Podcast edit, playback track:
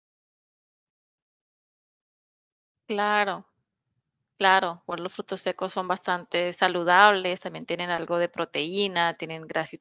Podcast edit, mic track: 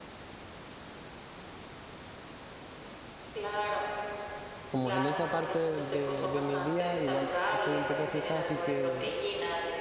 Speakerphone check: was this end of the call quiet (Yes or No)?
No